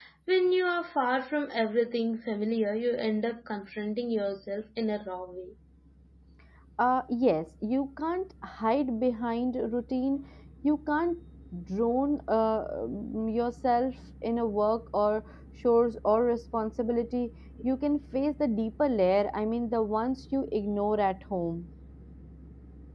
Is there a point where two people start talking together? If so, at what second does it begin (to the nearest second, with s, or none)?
none